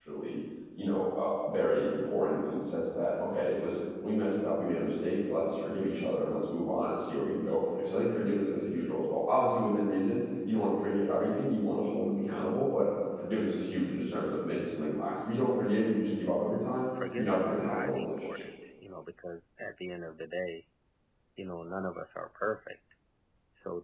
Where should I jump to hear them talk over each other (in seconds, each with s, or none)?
17.2 s